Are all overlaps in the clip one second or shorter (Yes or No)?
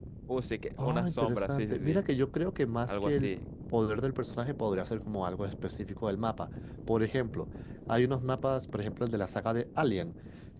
No